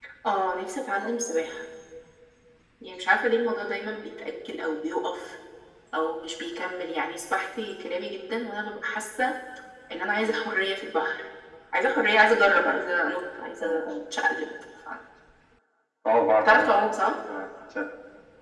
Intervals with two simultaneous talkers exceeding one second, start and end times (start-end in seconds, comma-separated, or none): none